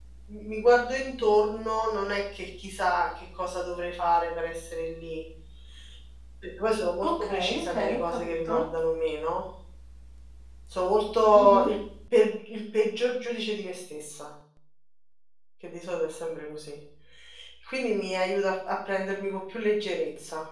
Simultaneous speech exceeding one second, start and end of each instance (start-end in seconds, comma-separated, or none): 7.2-8.6